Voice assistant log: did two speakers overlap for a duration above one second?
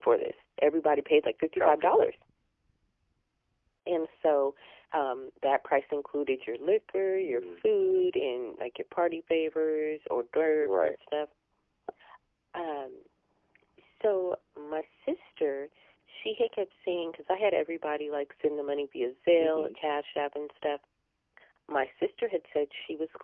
No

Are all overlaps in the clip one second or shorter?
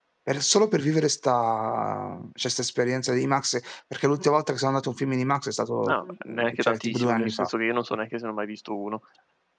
No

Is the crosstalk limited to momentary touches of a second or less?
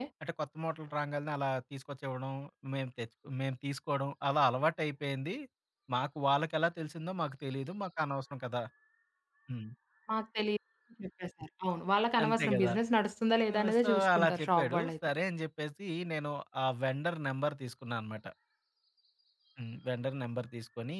No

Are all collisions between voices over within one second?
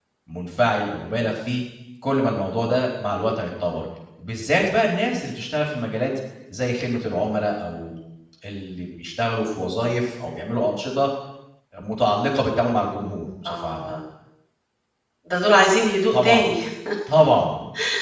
Yes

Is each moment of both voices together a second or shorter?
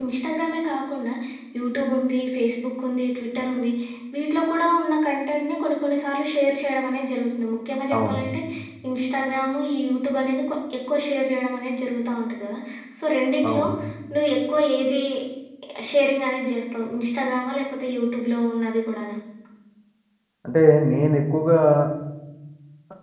Yes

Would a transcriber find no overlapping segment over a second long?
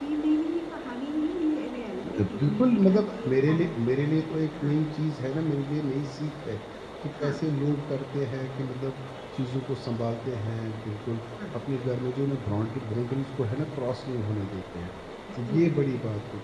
No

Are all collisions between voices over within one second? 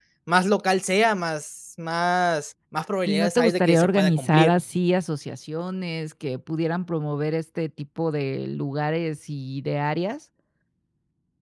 No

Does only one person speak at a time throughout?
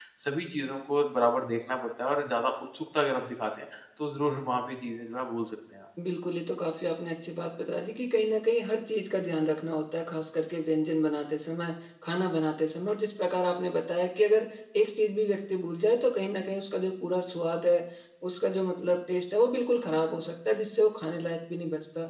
Yes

